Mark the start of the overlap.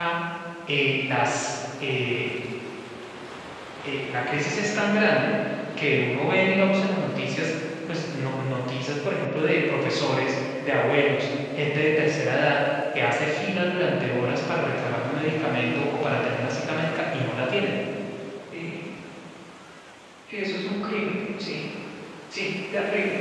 none

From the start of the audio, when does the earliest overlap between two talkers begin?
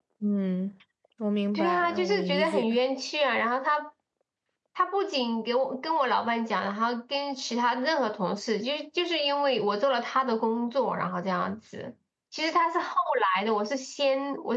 1.5 s

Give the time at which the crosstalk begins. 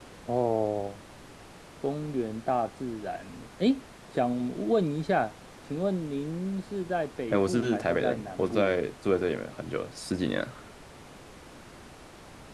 7.3 s

